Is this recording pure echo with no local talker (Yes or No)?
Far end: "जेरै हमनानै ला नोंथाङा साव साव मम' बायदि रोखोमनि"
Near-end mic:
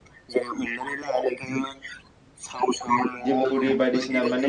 No